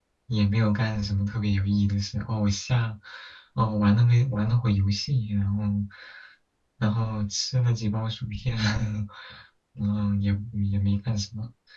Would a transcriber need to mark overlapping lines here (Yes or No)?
No